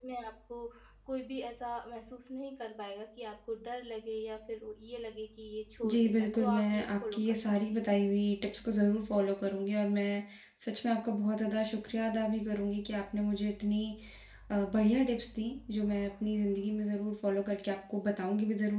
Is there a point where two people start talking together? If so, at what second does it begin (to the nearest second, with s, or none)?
6 s